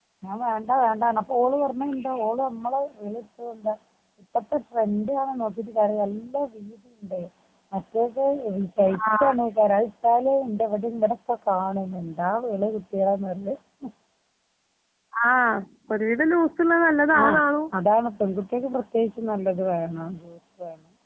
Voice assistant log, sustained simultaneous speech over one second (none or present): none